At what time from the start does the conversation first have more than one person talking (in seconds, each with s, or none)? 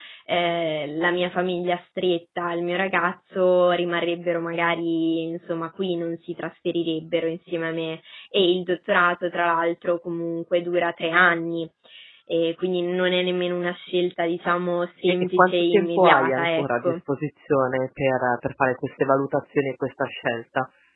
15.1 s